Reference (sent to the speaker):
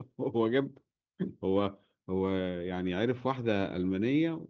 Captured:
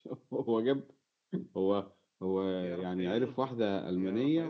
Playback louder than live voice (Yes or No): Yes